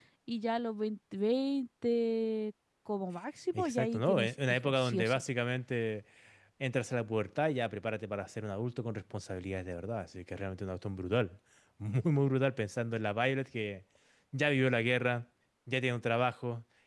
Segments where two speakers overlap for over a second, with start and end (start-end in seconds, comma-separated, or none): 3.5-5.2